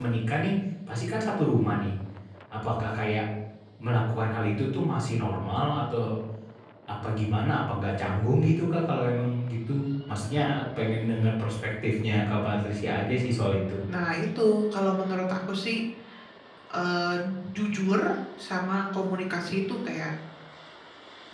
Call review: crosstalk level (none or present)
none